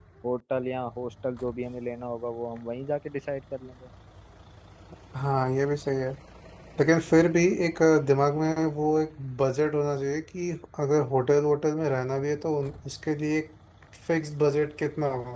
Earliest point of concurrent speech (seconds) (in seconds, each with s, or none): none